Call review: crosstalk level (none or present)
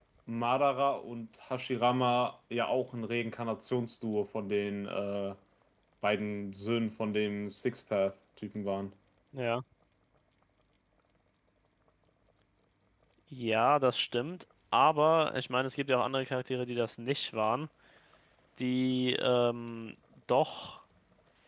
none